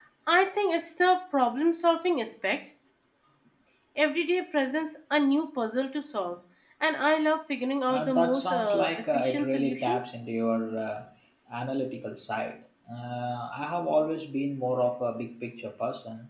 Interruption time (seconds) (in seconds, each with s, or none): 7.9 s